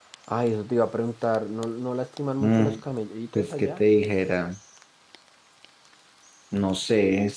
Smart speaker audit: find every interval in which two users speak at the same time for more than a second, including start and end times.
none

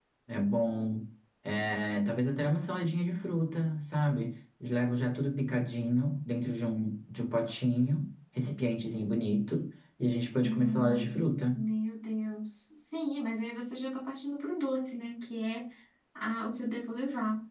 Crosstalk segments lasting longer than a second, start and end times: 10.4-11.6

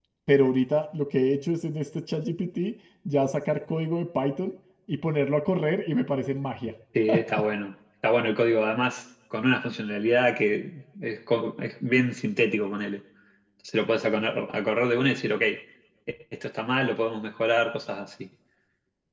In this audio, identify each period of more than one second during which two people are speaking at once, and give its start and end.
none

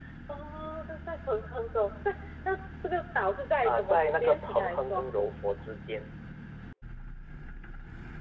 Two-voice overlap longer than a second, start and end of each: 3.6-5.0

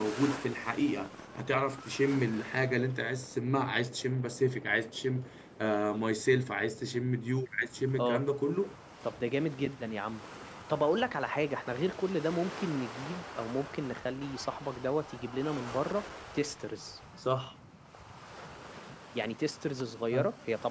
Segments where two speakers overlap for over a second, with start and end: none

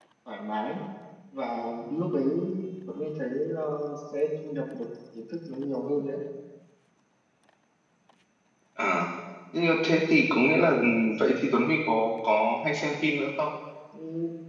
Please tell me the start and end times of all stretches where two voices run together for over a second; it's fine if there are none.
none

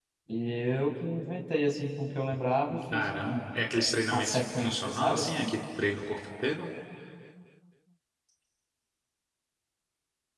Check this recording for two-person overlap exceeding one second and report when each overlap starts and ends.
4.1-5.5

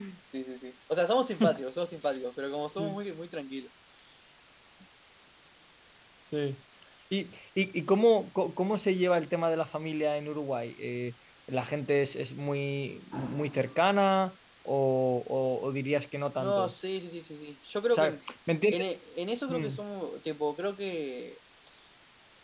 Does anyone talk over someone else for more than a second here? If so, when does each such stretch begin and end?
none

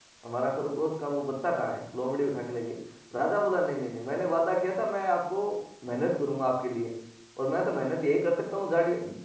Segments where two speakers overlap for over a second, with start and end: none

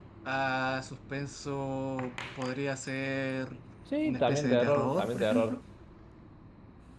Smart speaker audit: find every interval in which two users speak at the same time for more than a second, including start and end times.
4.0-5.6

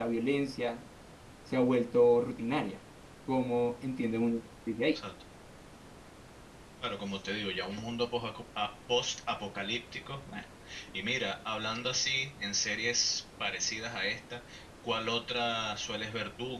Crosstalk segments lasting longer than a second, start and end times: none

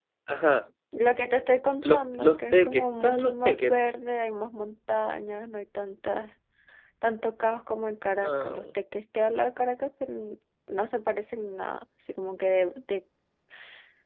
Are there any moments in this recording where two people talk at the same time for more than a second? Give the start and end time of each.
1.8-3.7

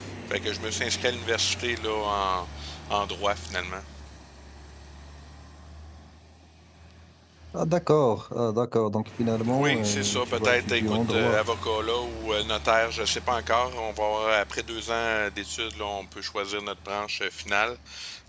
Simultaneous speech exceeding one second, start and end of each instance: 9.6-11.4

